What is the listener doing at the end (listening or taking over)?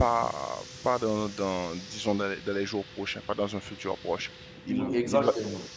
listening